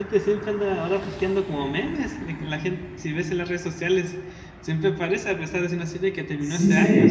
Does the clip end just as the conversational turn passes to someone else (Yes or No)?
Yes